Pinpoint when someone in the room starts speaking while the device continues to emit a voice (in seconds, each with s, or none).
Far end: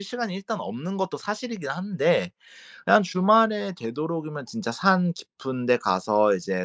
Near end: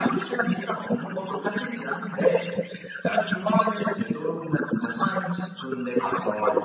none